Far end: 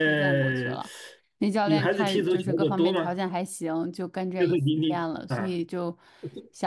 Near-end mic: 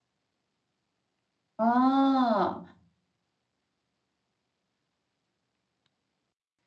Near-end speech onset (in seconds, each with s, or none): 1.6 s